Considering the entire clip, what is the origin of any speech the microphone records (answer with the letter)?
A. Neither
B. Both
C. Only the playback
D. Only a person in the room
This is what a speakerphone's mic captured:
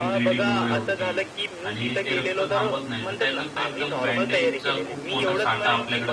B